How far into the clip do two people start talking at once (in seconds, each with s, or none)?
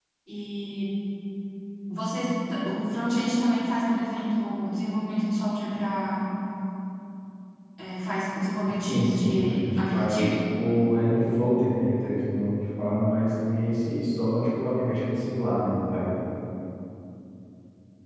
8.8 s